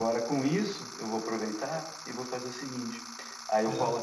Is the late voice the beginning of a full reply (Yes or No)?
No